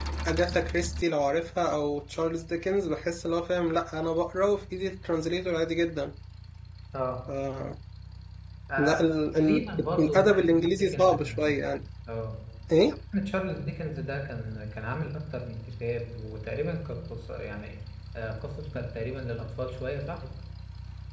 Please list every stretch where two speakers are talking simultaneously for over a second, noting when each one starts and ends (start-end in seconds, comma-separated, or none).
9.3-11.6